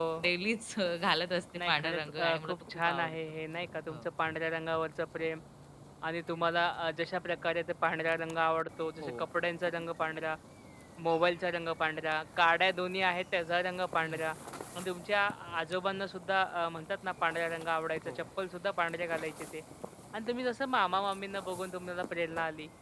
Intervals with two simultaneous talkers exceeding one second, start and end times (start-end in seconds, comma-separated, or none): 1.7-3.1